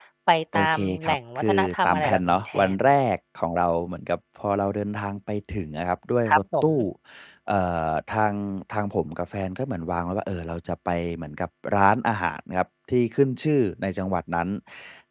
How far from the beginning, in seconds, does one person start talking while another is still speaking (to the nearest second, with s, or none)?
1 s